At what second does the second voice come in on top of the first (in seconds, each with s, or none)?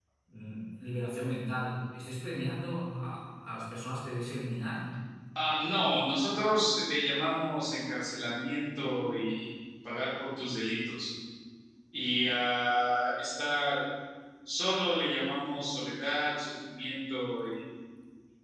none